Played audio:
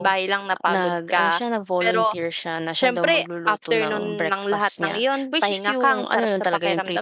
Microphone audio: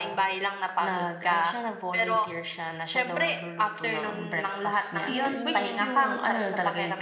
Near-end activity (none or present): present